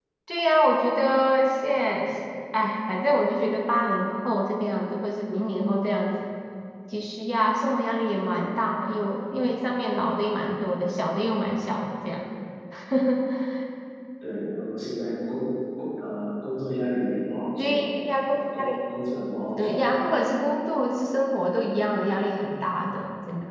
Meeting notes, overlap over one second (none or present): none